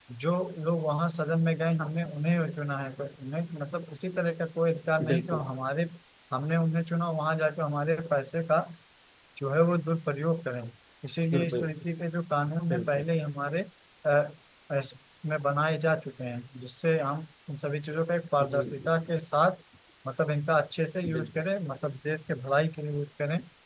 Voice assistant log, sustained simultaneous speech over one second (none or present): none